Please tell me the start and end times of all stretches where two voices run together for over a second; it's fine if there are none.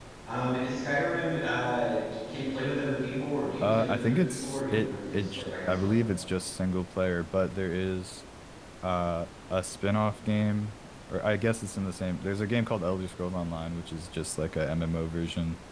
3.6-5.9

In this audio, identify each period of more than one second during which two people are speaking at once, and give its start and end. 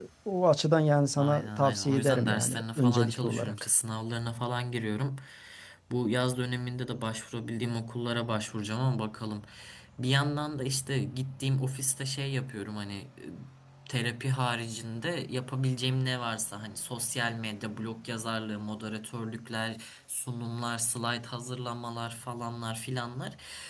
1.2-3.6

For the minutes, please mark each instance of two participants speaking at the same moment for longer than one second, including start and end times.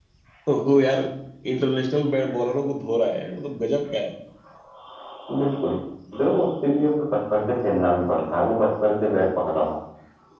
none

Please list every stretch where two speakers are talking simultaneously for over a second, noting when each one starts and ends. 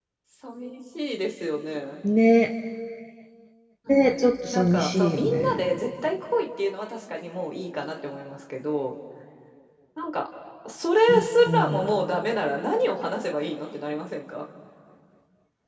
3.9-5.7

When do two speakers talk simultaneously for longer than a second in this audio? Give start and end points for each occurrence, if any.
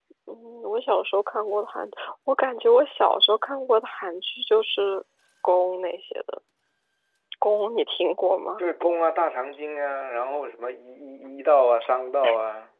none

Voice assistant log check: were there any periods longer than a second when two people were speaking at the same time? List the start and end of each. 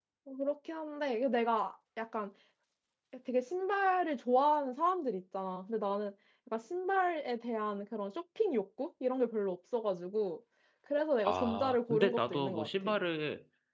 11.2-13.0

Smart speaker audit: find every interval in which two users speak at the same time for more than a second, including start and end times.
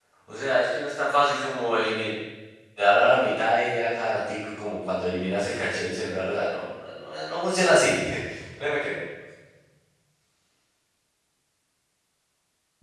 none

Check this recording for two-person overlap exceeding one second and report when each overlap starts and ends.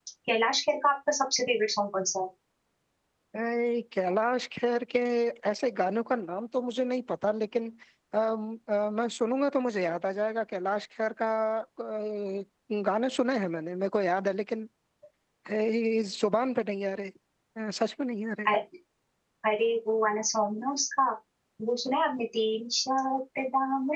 none

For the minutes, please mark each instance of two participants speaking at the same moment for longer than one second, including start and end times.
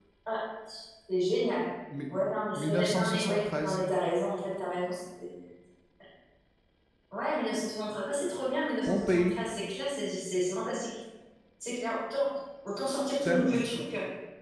2.5-3.8

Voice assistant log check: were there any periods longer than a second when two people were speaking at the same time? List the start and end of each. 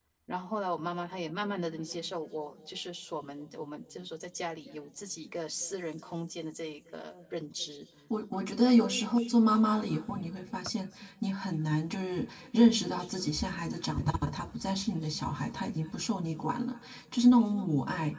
none

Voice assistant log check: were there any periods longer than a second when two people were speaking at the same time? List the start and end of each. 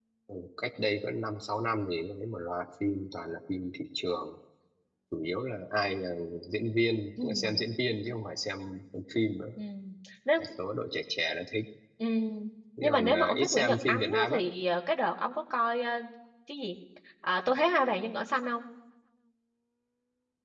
12.8-14.4

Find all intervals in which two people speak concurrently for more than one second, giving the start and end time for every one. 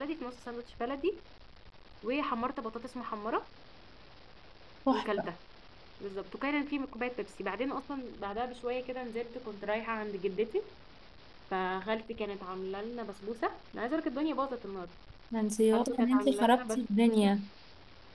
15.7-17.3

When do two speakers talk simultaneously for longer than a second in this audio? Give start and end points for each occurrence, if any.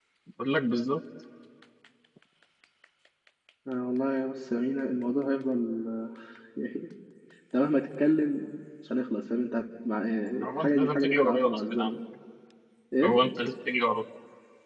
10.4-11.9

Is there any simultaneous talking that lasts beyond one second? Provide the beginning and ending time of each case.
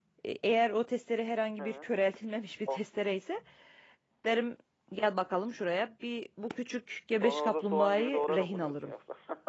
7.2-8.9

